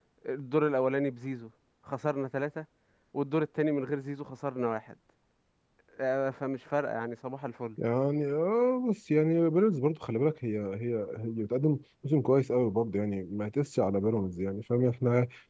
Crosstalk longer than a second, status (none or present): none